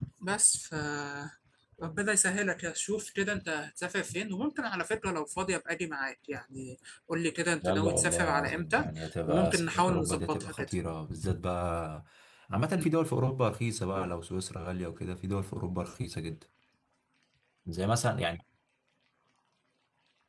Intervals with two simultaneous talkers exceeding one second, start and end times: 7.6-8.8, 9.3-10.7

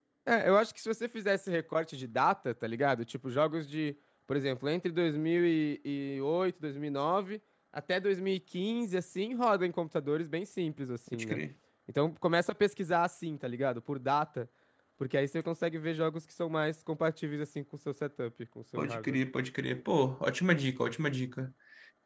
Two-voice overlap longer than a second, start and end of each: none

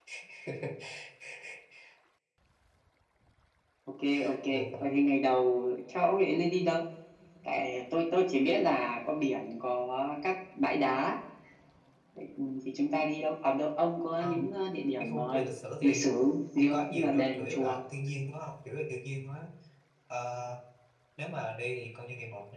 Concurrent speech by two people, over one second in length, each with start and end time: 15.8-17.8

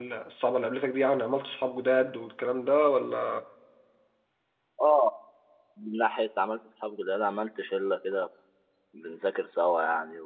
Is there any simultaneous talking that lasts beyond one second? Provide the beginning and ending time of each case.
none

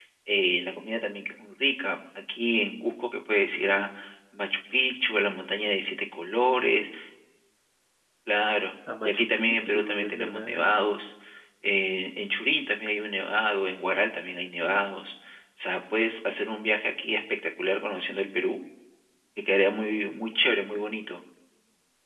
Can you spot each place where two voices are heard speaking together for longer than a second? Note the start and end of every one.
9.0-10.7

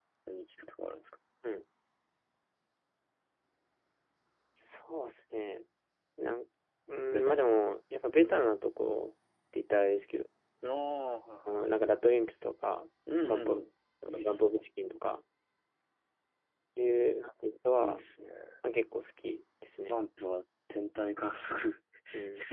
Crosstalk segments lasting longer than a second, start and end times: none

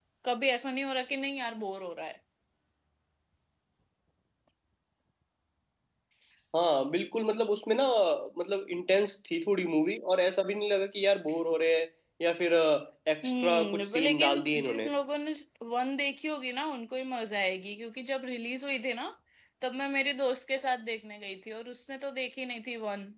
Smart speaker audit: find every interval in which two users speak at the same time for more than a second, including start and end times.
13.2-14.9

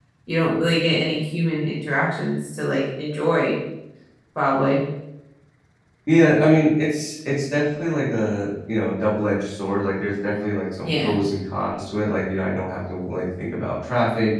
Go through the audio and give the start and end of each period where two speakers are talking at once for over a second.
none

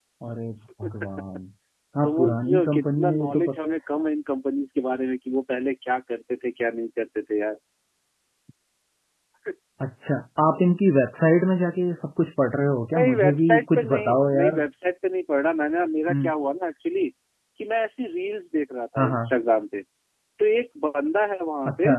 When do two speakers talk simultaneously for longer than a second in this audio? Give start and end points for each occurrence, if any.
2.0-3.6, 13.0-14.6

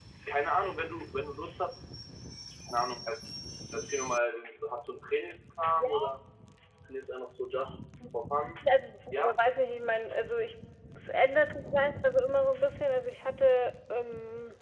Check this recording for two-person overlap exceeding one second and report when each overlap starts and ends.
none

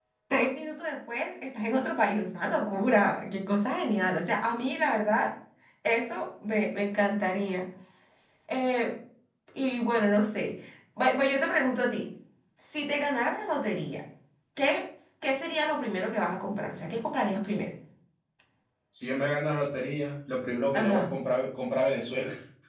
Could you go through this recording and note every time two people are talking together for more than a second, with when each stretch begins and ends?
none

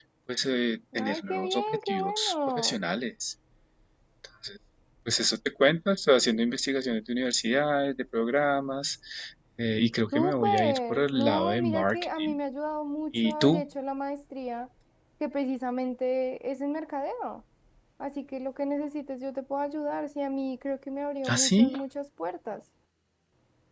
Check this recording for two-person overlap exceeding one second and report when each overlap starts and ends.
1.0-2.8, 10.1-12.4

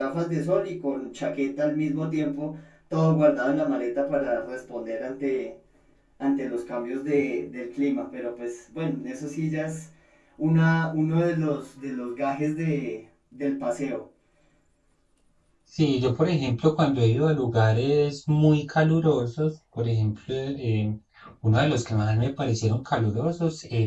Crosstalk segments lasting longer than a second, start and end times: none

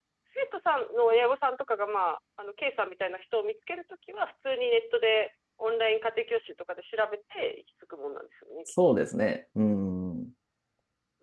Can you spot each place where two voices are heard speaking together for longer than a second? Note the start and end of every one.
none

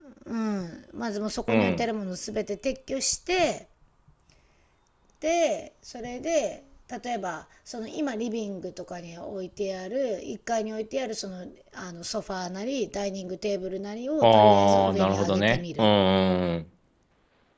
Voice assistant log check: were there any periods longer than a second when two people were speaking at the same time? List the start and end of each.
14.2-15.9

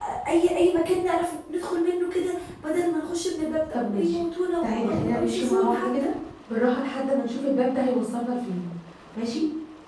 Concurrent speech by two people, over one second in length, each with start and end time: 4.6-5.9

